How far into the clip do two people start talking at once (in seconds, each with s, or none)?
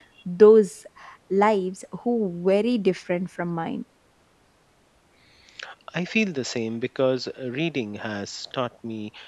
none